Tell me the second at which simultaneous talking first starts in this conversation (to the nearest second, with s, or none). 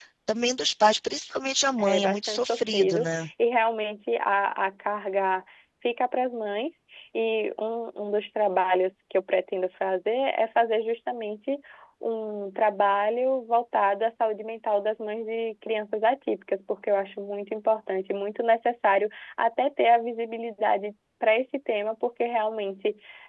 2 s